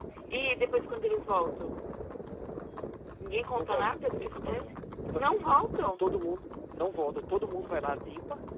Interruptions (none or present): present